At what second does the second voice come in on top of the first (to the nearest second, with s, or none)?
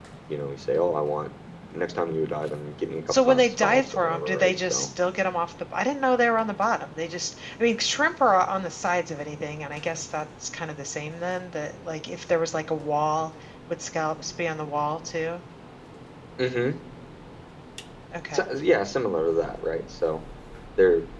3 s